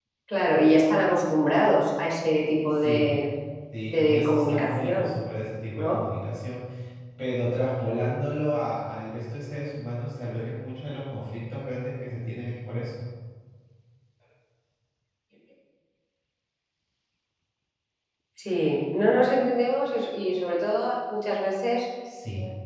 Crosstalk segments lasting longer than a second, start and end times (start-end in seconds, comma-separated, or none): 3.8-5.1